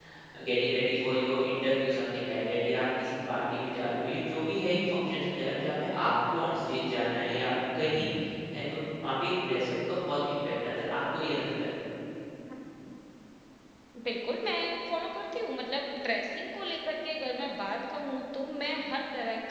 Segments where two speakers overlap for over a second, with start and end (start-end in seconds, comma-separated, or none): none